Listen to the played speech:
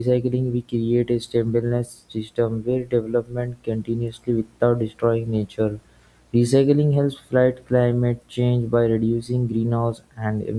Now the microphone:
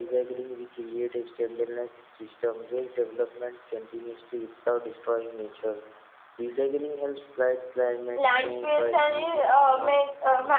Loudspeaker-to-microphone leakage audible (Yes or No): Yes